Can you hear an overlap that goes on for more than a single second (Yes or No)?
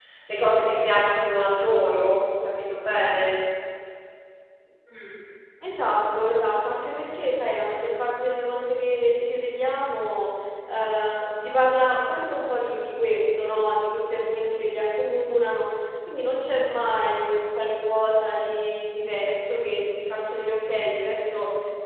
No